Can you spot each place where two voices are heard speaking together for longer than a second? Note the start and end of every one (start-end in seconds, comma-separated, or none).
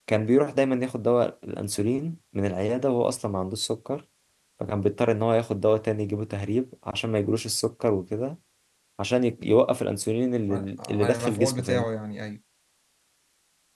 10.5-11.8